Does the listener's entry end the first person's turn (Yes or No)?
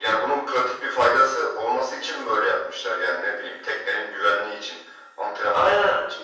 Yes